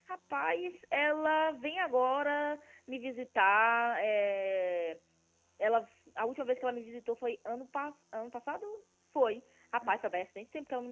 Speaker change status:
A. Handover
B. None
B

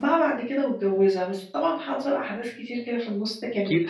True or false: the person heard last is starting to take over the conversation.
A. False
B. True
B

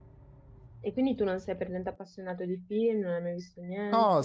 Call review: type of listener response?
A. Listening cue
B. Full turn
B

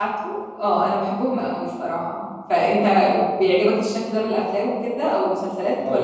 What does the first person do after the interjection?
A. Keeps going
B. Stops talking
B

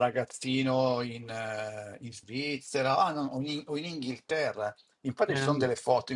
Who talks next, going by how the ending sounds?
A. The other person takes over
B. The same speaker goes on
B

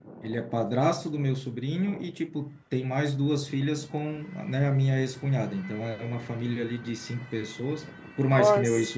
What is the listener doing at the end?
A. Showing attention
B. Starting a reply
A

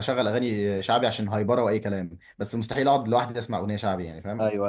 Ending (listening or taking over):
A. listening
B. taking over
B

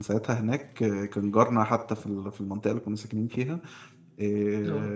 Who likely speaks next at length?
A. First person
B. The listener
A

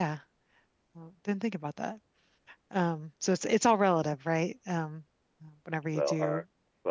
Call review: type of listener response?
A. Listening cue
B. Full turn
B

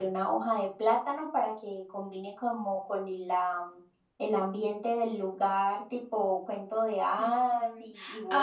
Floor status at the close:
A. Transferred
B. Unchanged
A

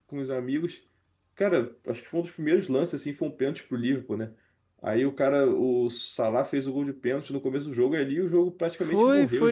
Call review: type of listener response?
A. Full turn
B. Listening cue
A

